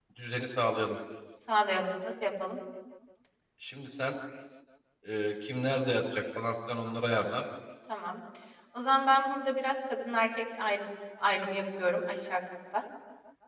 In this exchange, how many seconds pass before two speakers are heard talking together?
none

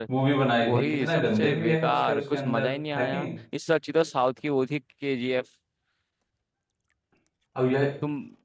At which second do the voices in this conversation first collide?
0.6 s

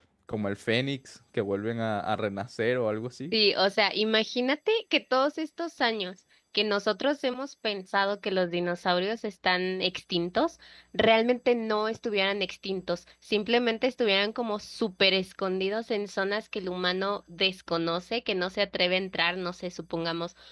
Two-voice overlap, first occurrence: none

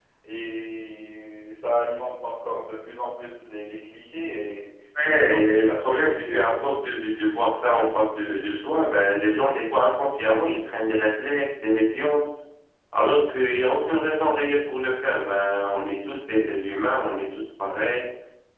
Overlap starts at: 5.0 s

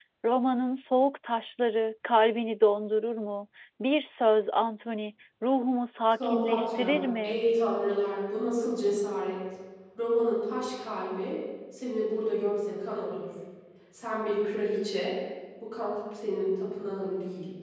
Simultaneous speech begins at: 6.1 s

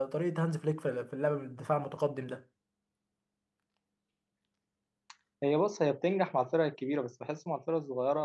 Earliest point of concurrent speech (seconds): none

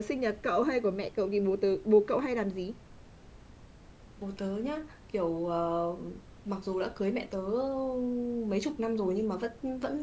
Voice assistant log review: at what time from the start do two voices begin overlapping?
none

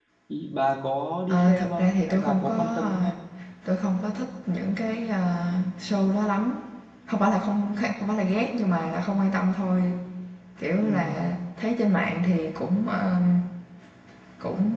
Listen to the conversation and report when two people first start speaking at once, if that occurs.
1.3 s

